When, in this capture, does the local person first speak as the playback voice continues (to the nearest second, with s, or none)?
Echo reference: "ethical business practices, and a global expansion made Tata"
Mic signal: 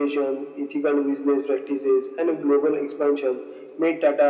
none